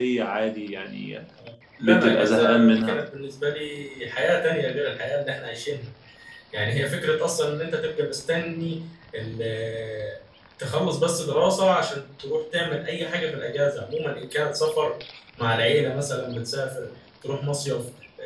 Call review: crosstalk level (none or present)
present